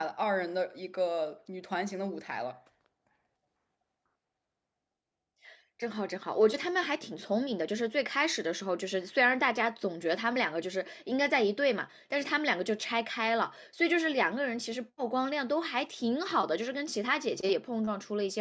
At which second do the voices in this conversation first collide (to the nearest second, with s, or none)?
none